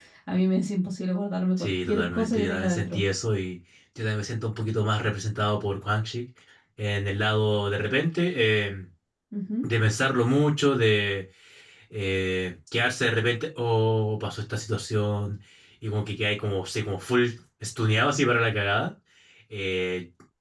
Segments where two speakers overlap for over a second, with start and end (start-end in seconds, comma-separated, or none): 1.6-3.0